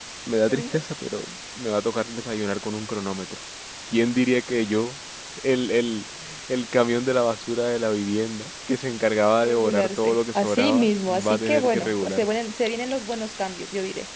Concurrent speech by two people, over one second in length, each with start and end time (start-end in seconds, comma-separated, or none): 9.4-12.2